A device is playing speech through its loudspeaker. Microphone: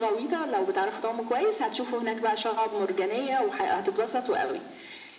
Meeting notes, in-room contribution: none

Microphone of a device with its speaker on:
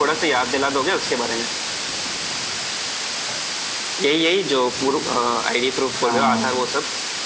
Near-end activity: present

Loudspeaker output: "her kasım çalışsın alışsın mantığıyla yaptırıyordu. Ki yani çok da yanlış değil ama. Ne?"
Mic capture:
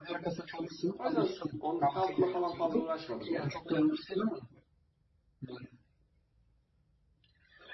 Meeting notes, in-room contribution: present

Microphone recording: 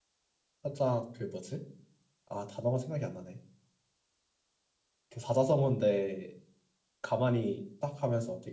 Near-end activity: present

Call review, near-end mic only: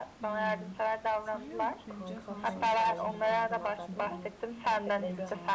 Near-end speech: present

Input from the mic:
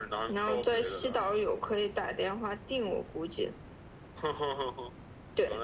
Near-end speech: none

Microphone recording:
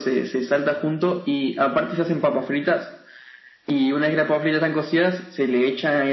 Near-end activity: none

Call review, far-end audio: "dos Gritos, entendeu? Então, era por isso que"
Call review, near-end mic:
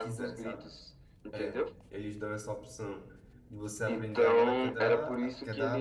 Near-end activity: present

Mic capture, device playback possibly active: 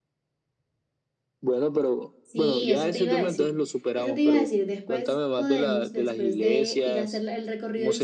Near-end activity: present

